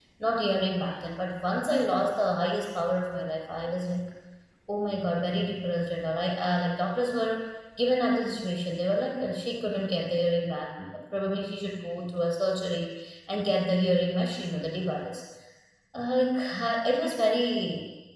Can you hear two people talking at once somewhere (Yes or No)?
No